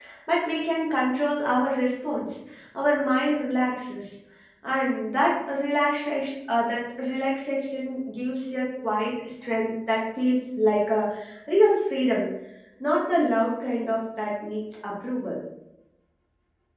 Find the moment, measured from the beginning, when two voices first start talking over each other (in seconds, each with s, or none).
none